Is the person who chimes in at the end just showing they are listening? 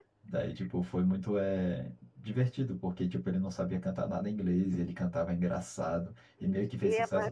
No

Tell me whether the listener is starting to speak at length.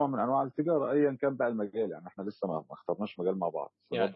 Yes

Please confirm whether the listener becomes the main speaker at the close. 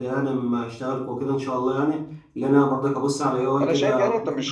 Yes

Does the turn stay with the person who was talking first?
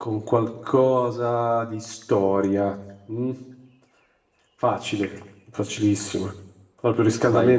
Yes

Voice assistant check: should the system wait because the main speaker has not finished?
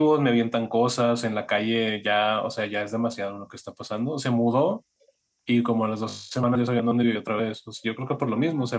Yes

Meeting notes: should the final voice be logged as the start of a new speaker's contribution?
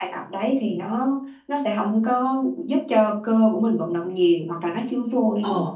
No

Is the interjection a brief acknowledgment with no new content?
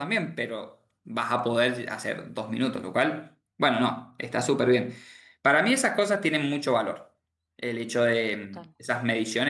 Yes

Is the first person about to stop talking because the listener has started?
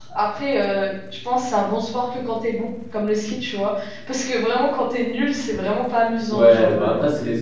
Yes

